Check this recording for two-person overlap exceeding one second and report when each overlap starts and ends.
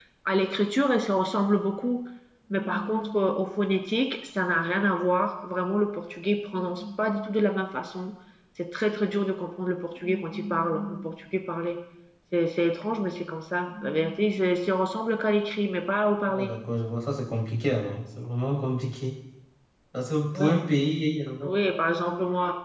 none

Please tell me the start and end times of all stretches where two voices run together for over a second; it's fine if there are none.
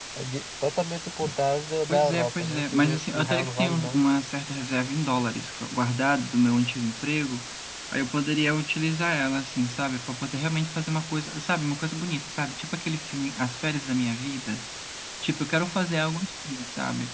1.9-4.0

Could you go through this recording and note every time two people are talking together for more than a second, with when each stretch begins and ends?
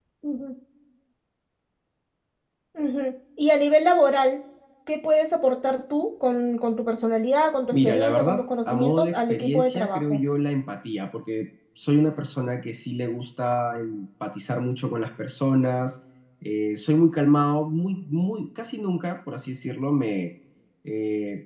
7.7-10.2

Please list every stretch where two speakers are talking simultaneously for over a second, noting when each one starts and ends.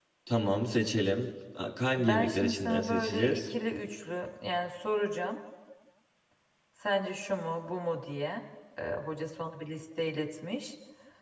2.0-3.4

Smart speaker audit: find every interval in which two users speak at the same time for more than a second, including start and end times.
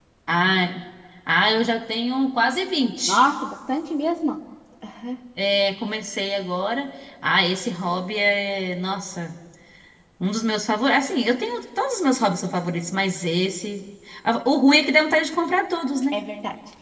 none

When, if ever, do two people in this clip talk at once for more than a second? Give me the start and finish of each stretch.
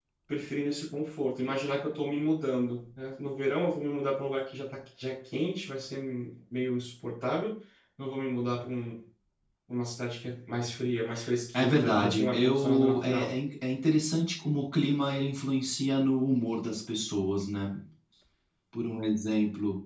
11.6-13.3

